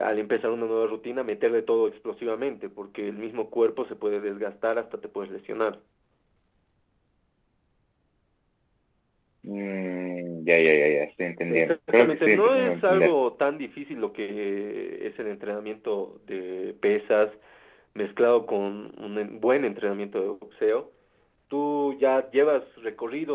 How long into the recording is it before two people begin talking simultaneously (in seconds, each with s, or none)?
11.5 s